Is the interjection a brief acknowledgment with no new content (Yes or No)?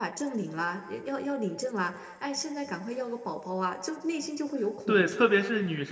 No